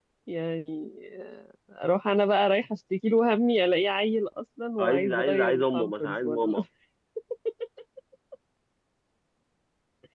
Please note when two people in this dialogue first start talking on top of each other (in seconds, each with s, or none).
4.8 s